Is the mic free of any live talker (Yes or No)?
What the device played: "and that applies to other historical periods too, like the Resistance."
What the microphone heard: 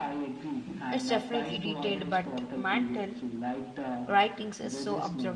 No